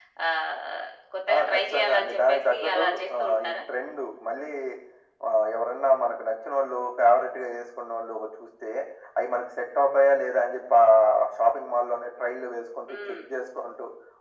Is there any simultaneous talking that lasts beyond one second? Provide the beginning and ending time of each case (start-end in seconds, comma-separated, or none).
1.3-3.5